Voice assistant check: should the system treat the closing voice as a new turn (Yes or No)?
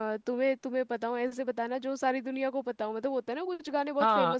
Yes